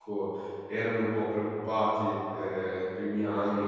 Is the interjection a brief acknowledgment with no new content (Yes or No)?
Yes